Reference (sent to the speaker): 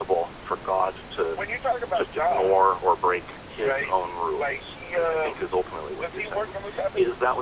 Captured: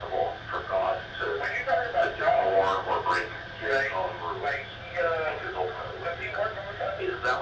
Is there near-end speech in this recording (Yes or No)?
No